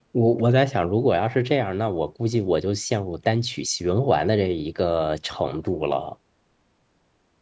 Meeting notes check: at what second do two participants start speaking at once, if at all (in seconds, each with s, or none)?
none